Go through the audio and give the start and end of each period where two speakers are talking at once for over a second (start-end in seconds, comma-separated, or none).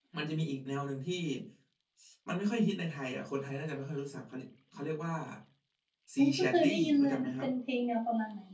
6.2-7.5